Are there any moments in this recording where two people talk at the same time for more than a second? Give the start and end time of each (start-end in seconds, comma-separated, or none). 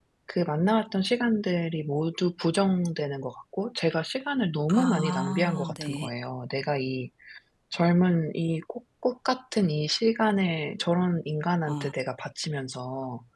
4.7-6.1